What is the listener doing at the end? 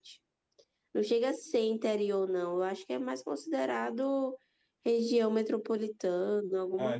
taking over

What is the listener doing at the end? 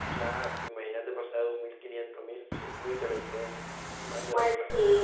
taking over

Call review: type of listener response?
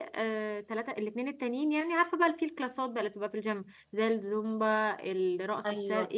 taking over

